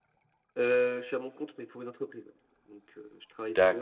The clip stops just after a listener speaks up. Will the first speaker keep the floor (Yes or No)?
No